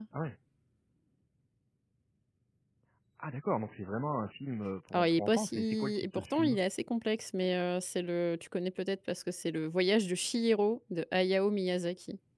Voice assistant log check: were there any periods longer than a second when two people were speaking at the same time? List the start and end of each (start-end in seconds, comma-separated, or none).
4.9-6.6